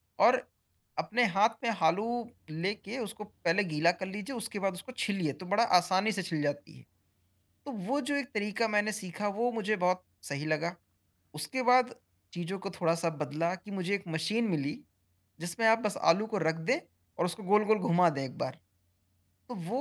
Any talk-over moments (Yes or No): No